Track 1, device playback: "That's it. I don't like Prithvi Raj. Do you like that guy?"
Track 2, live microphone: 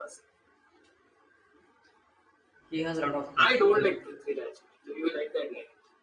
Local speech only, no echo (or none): He has a lot of hits, even